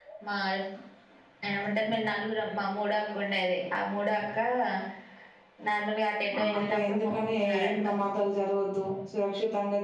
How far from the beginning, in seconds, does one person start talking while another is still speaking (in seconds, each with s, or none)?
6.4 s